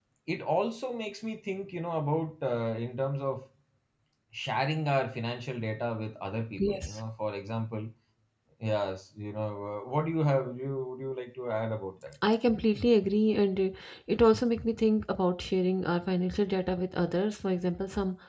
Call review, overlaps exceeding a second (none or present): none